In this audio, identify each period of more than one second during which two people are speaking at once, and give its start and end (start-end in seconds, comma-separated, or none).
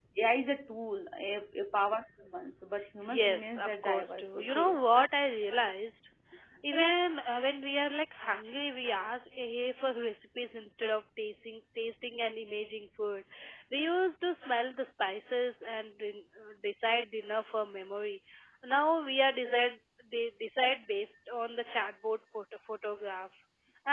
3.0-4.8